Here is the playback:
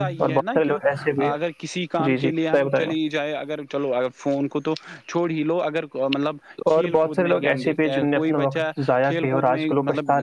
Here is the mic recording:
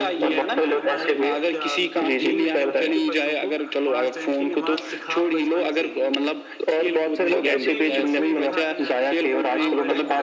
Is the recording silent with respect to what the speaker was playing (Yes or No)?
No